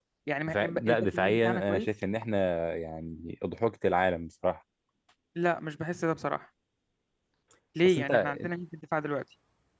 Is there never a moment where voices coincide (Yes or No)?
No